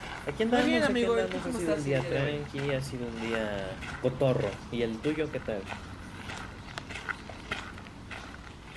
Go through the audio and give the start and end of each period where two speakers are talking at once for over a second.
0.5-2.4

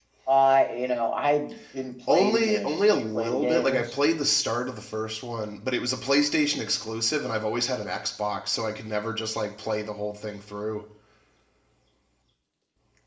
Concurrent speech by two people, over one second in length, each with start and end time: 2.1-3.8

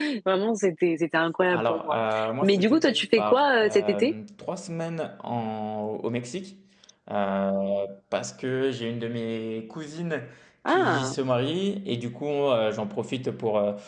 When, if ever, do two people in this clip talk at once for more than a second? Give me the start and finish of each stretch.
2.4-4.1

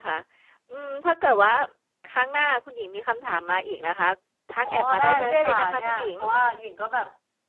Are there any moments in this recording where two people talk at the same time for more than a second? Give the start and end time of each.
4.6-6.1

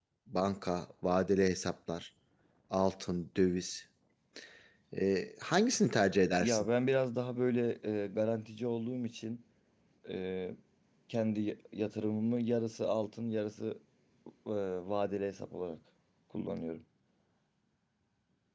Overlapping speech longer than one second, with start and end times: none

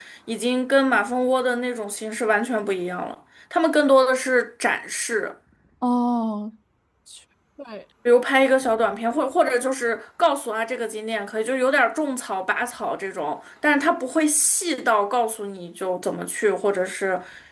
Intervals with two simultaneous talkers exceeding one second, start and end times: none

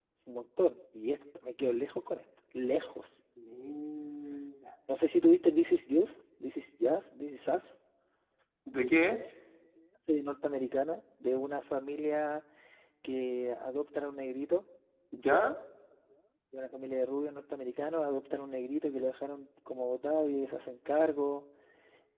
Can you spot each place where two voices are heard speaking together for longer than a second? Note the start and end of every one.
none

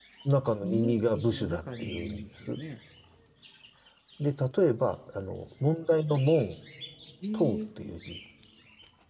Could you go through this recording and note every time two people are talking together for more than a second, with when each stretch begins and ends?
0.6-2.6

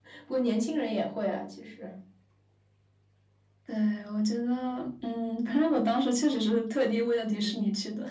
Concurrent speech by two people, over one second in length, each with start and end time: none

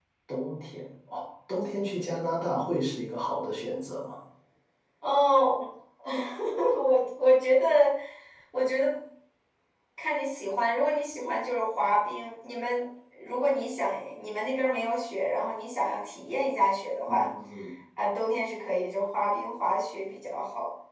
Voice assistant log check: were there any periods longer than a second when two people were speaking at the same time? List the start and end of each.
none

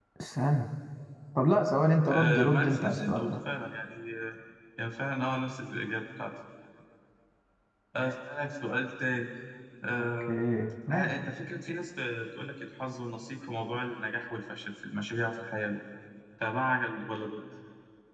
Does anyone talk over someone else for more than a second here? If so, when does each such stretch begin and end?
2.1-3.4

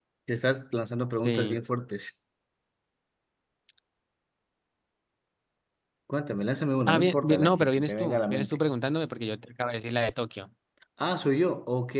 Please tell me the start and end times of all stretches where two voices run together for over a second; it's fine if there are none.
6.8-8.6

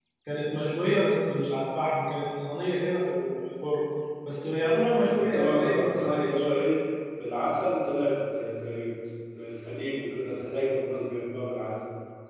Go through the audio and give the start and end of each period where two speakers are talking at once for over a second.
4.5-6.5

